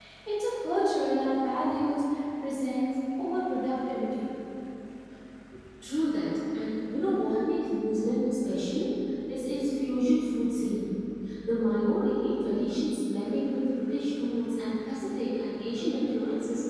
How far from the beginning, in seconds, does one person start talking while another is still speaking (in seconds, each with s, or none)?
none